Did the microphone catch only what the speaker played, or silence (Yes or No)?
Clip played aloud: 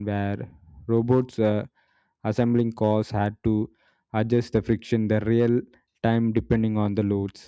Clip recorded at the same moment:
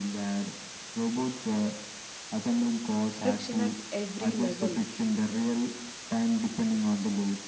No